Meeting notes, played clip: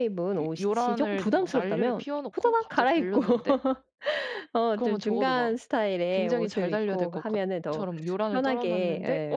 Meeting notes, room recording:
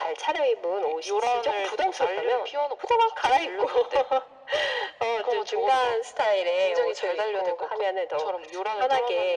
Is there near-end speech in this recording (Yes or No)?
No